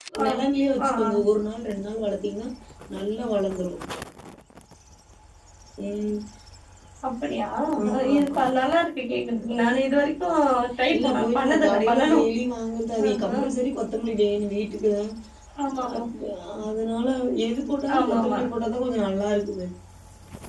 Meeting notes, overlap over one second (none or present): present